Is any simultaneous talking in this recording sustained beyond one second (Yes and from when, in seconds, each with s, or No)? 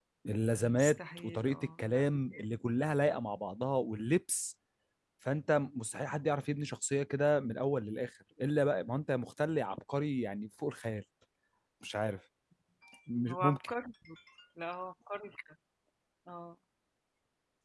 Yes, from 0.6 s